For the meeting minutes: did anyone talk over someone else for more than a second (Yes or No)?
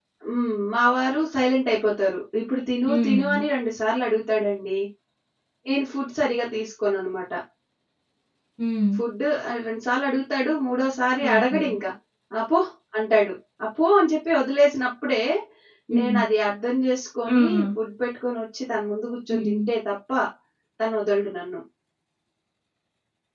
No